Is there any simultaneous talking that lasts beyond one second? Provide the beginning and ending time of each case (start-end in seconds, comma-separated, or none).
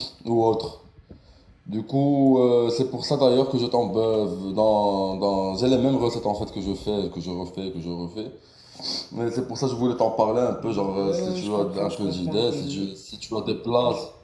10.6-12.9